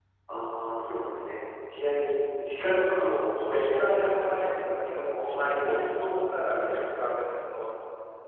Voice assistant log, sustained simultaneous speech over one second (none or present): present